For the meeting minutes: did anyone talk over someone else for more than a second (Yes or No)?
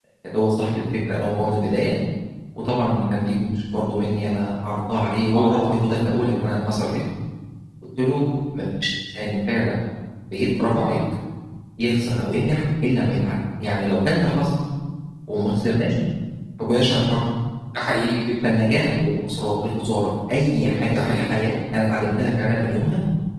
No